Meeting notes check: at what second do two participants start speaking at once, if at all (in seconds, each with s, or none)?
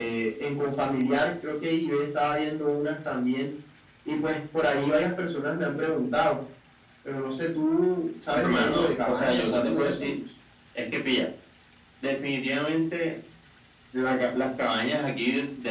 8.3 s